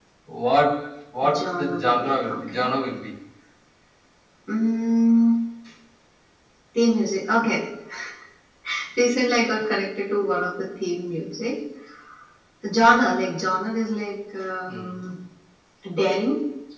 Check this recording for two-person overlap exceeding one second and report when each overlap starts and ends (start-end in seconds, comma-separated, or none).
1.4-2.7